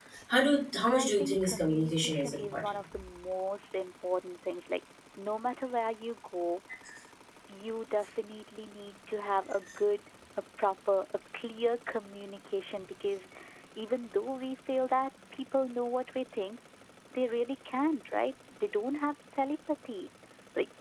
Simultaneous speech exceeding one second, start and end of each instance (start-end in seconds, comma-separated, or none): 0.8-2.7